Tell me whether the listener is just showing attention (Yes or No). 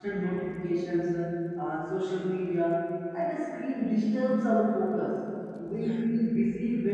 Yes